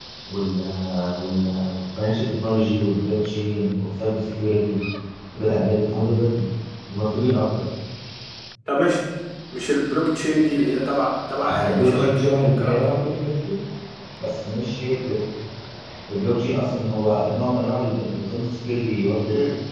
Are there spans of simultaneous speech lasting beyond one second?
Yes, from 11.4 s

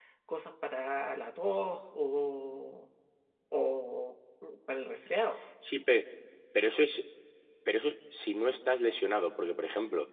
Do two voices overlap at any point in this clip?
No

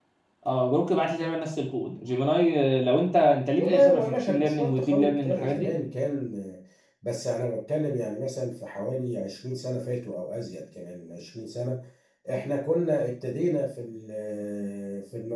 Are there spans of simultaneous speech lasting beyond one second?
Yes, from 3.5 s

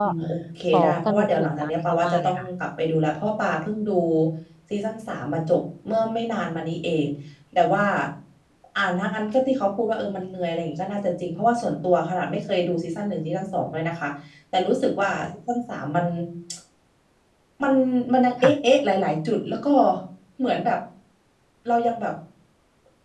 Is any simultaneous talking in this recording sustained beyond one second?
Yes, from 0.7 s

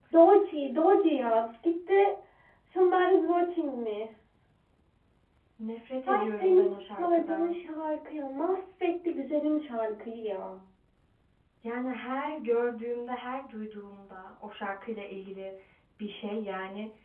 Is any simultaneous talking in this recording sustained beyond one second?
Yes, from 6.1 s

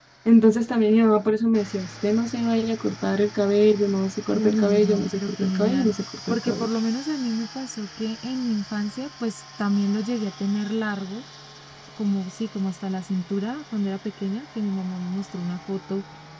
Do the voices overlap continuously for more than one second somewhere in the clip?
Yes, from 4.3 s

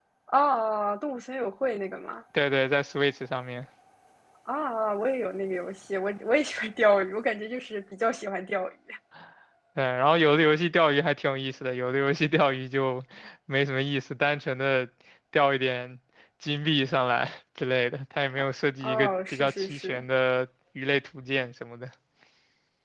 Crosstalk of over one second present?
Yes, from 18.8 s

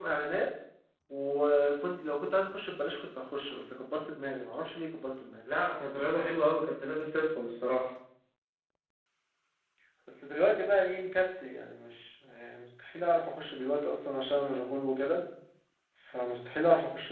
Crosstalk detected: No

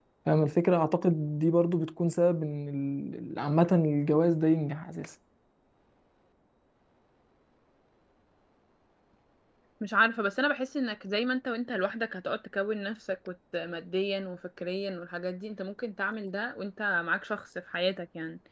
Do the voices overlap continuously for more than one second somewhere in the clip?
No

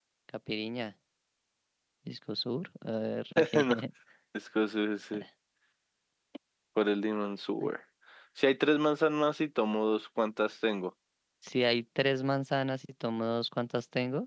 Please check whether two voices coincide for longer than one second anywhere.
No

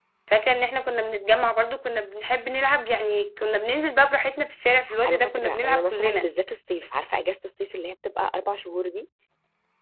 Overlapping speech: Yes, from 4.9 s

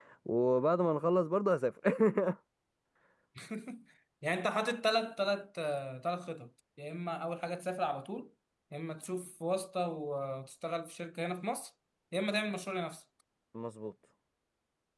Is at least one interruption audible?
No

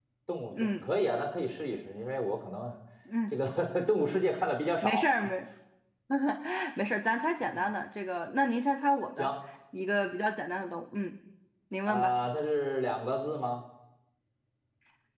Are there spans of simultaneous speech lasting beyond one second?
No

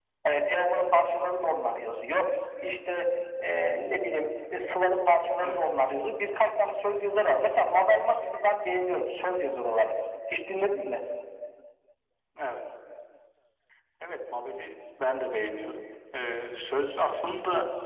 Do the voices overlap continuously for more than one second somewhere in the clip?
No

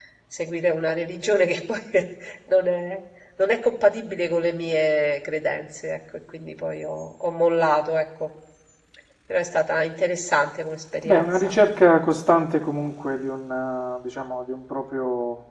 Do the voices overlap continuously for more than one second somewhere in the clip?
No

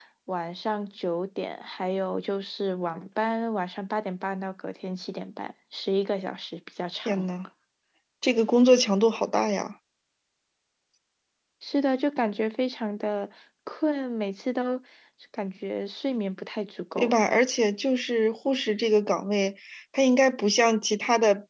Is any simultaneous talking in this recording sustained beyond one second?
No

